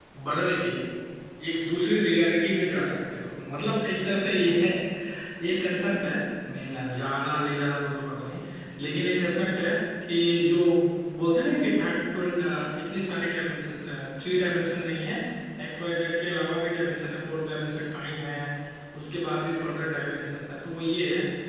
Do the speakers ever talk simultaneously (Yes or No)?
No